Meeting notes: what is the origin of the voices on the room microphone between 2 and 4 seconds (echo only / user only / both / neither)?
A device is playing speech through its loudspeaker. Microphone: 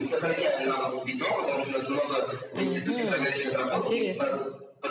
both